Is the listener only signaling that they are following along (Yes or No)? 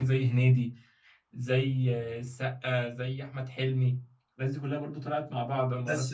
No